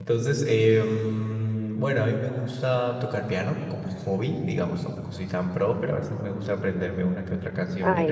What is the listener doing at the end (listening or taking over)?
taking over